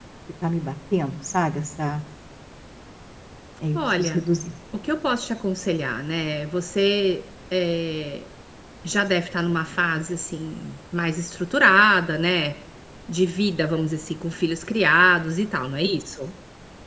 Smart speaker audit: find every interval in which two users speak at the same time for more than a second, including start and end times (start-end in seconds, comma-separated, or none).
none